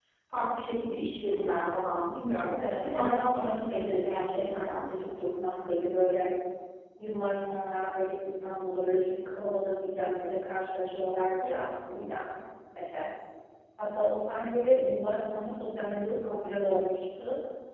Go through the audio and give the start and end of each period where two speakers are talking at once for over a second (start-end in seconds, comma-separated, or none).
2.6-5.0